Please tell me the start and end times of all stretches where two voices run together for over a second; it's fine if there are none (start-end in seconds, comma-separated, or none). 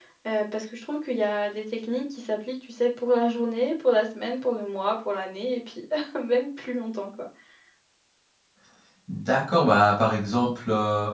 none